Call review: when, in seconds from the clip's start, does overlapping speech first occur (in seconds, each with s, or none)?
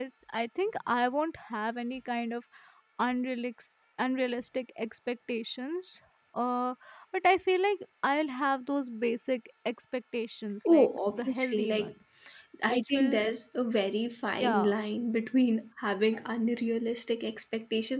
10.7 s